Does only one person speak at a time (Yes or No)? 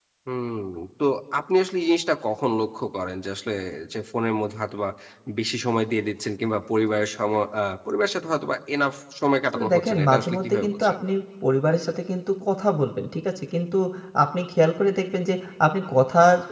No